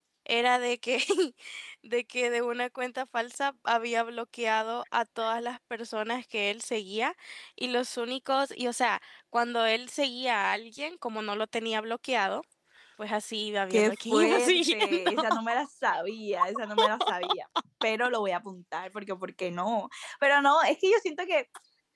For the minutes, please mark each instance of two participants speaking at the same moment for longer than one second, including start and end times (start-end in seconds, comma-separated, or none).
13.7-15.1